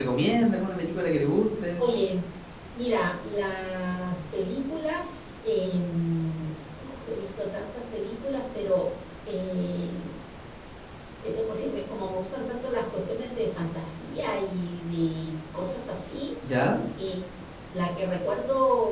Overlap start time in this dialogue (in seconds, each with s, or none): none